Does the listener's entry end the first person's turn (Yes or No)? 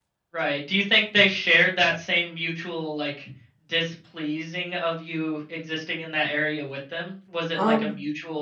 No